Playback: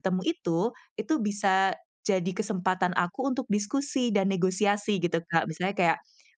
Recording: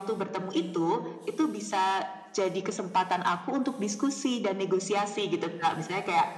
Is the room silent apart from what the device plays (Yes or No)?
Yes